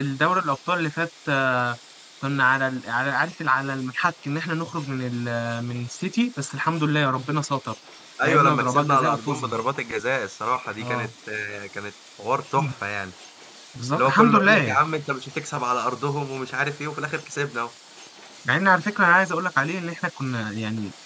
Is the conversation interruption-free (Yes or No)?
No